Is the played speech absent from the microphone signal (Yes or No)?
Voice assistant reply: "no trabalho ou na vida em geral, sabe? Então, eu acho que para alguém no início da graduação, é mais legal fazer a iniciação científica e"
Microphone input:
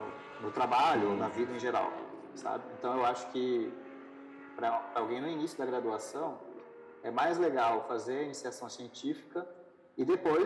No